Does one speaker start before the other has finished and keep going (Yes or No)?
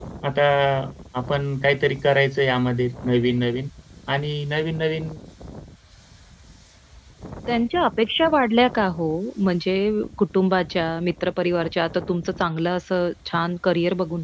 No